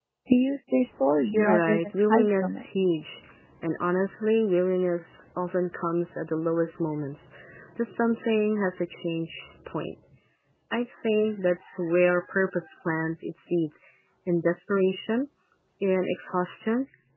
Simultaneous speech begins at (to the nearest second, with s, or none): 1 s